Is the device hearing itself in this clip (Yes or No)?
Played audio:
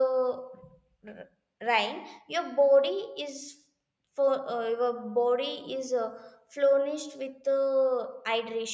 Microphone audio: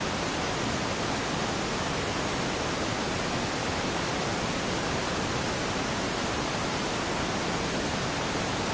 No